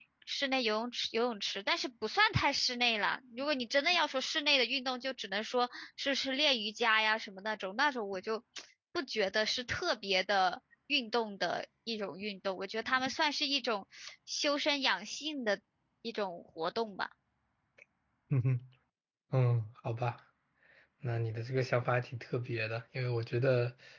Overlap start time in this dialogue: none

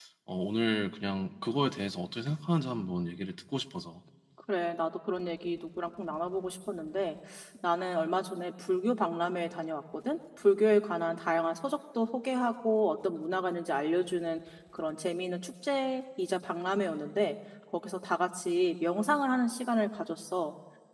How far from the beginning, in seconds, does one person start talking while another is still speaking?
none

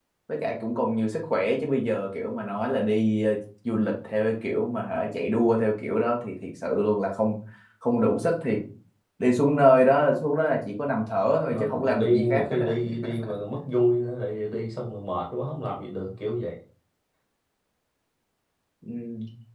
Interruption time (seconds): 11.5 s

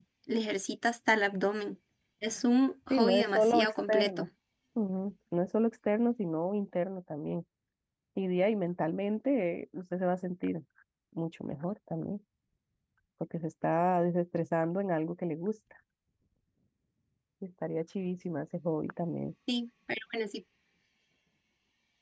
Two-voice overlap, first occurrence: 2.9 s

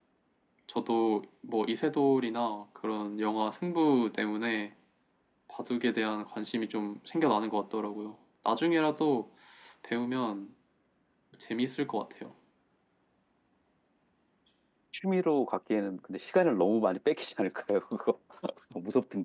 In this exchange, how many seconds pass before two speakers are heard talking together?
none

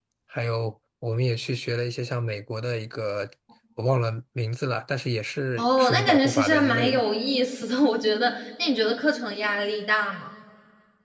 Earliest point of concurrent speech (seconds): 5.6 s

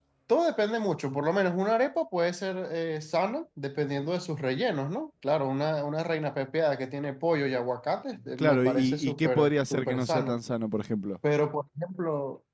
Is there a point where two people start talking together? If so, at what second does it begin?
8.4 s

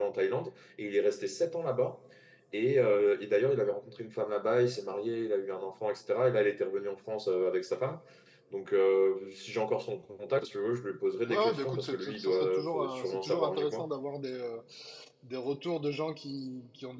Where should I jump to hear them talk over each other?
11.2 s

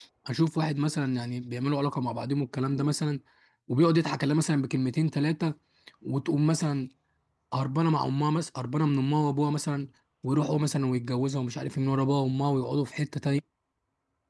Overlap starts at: none

